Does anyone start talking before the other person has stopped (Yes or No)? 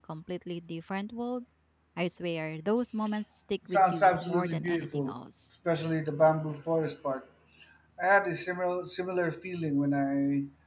Yes